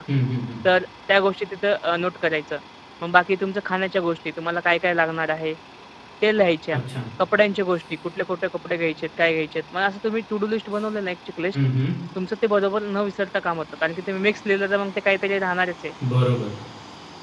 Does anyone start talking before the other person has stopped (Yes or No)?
No